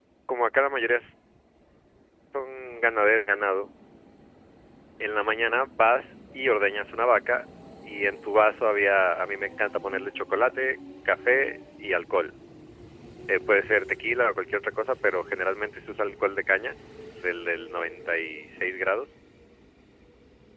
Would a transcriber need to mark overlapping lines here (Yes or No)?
No